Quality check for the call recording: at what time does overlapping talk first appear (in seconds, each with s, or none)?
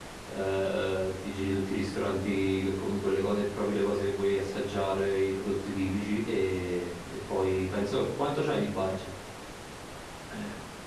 none